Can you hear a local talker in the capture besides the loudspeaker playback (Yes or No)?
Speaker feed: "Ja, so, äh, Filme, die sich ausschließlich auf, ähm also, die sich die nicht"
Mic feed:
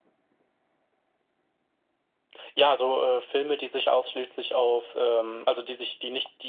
No